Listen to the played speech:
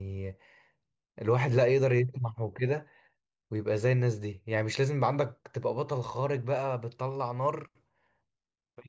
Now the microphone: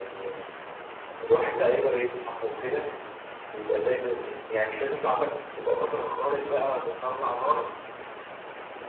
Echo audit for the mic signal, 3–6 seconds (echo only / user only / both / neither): echo only